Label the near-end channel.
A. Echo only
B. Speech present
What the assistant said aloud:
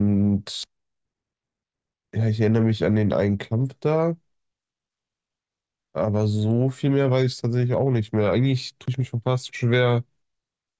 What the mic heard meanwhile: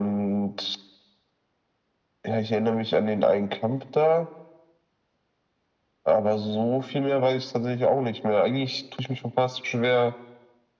A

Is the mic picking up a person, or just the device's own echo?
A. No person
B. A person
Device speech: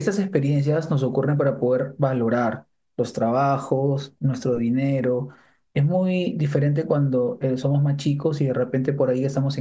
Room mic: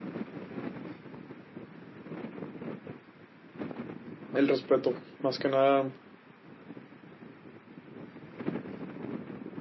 B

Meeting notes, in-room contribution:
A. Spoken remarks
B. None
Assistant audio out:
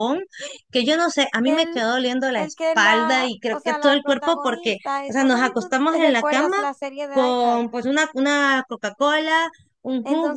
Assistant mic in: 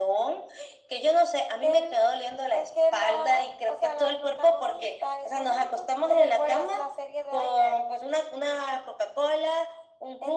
B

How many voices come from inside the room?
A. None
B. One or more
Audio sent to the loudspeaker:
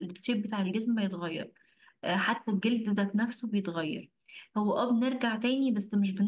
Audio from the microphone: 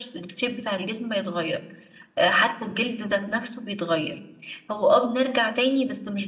A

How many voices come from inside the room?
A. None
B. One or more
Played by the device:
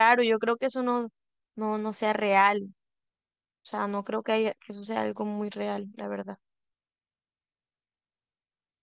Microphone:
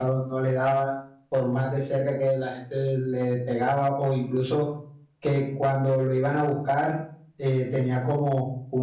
B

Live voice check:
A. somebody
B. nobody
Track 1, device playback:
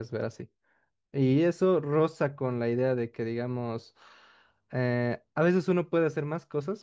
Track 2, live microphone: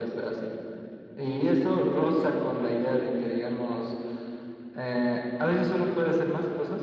B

